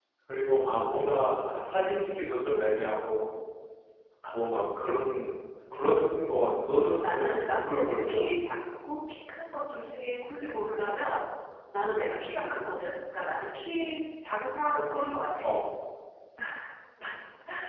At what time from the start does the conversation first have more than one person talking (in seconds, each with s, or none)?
7.0 s